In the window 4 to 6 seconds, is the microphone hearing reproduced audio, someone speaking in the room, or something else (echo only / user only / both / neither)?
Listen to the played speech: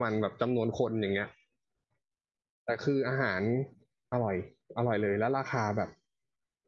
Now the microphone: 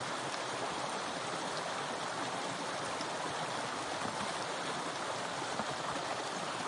neither